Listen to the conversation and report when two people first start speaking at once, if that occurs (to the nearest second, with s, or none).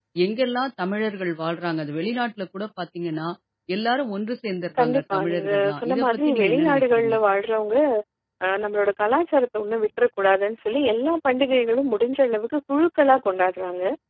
5 s